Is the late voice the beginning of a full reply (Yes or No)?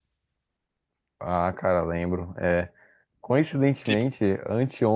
No